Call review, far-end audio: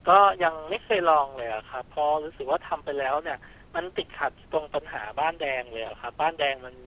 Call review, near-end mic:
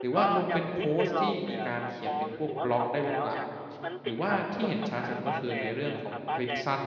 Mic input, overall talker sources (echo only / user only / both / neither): both